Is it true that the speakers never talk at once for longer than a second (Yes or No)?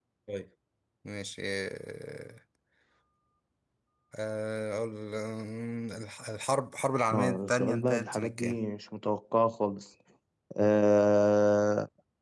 No